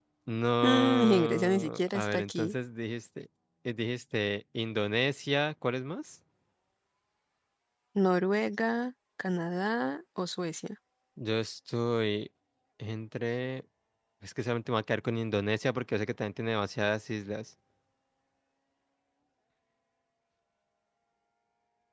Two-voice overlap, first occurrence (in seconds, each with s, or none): 0.6 s